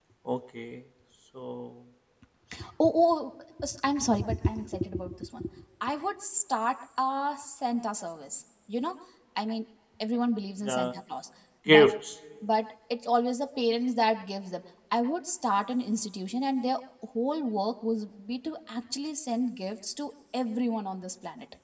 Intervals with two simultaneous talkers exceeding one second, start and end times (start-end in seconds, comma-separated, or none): none